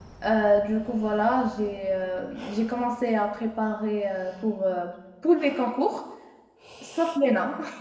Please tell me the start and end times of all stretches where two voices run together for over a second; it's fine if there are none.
none

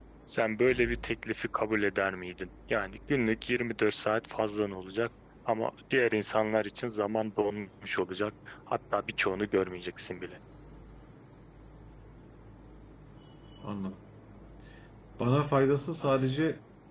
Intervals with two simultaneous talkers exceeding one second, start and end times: none

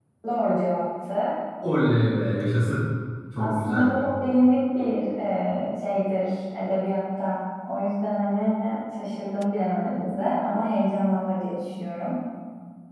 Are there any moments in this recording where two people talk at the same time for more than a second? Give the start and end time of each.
none

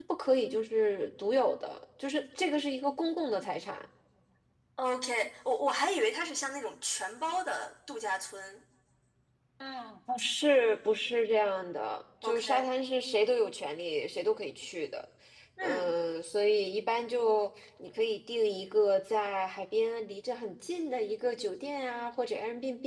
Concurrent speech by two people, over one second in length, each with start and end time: none

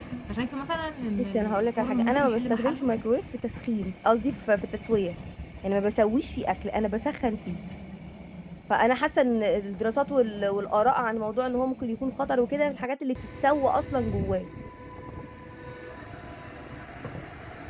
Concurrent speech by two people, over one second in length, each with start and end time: 1.2-2.9

